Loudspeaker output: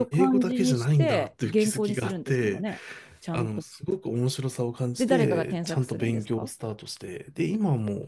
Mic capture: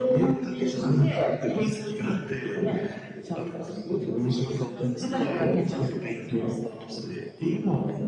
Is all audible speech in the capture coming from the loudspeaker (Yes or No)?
No